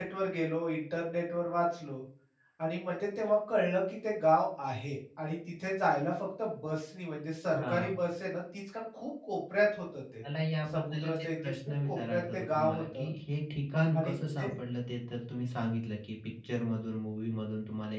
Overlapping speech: Yes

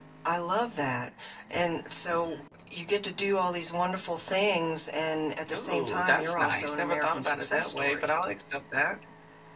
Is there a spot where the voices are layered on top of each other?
Yes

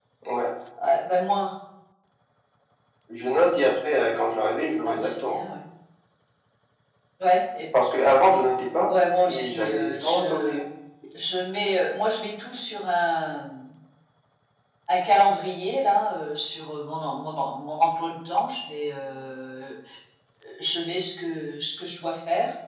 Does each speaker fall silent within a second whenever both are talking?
No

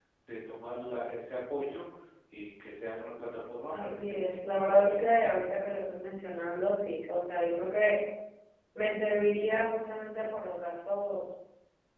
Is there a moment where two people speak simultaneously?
Yes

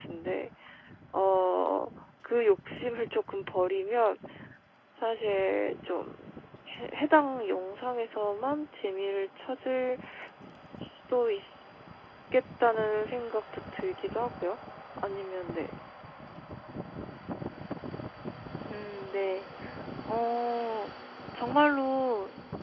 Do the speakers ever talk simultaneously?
No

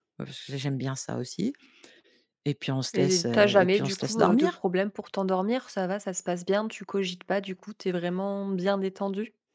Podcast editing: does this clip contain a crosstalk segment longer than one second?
Yes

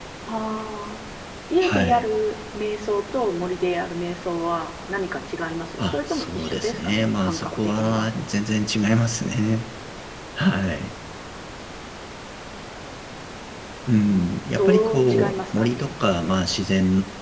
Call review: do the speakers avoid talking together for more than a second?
No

